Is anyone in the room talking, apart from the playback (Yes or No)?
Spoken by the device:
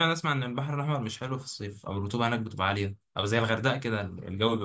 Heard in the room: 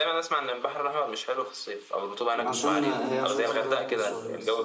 Yes